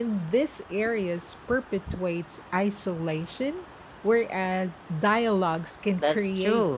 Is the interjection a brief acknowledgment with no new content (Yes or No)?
No